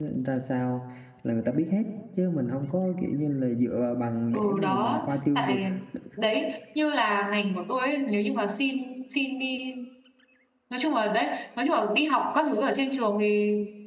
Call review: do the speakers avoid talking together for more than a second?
No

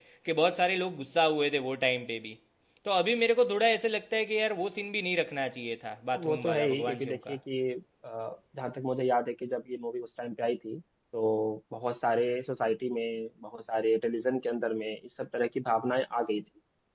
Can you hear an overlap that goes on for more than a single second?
Yes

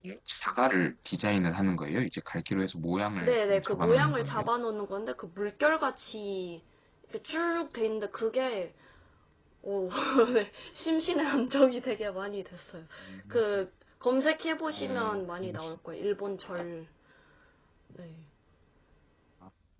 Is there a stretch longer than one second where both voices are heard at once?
Yes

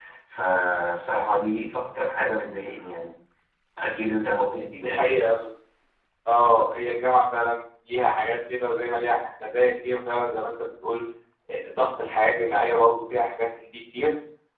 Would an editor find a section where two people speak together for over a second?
No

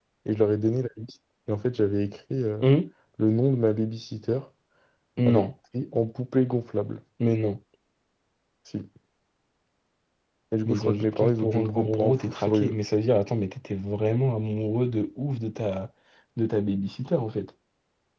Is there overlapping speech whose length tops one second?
Yes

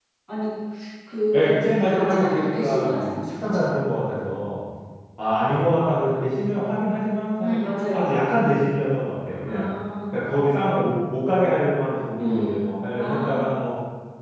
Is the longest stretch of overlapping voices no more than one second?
No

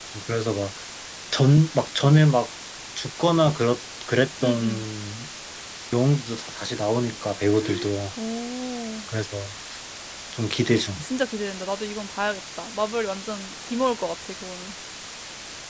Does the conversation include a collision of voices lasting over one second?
No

